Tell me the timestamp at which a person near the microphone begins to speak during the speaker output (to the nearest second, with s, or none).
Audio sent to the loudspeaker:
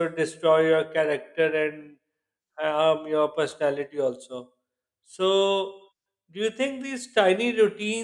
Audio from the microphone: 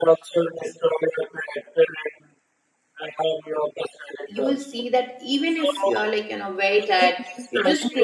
4 s